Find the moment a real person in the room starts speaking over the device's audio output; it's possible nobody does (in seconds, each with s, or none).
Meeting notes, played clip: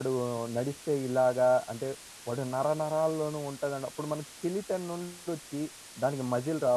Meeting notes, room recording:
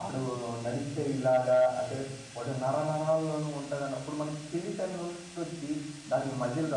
none